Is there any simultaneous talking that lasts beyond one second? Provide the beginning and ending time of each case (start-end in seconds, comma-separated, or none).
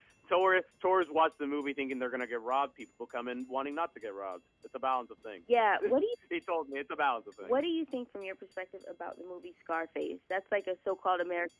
none